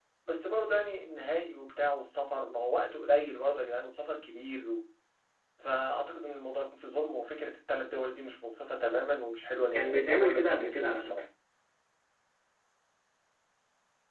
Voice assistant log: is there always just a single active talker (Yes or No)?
No